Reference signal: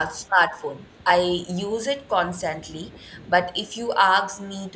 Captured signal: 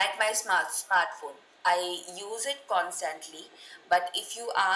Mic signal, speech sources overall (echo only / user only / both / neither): echo only